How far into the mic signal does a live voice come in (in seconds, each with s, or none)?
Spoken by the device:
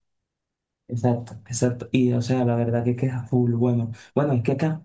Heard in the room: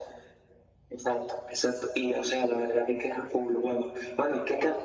none